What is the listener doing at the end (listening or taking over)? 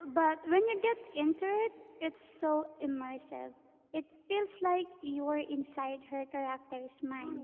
taking over